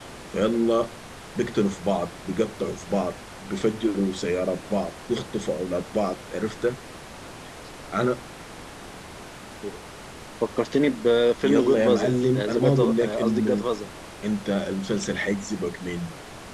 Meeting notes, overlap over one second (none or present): present